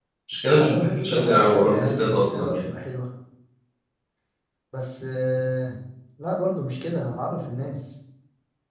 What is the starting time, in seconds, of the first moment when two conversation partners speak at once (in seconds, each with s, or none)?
0.5 s